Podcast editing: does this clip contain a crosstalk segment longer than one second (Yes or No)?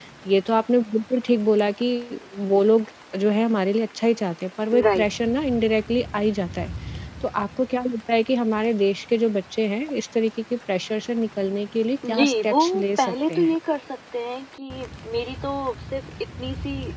Yes